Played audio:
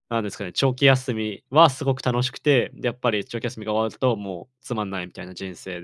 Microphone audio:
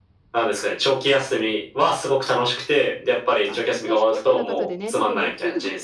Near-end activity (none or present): present